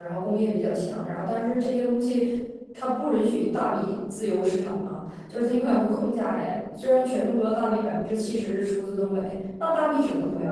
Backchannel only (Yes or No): Yes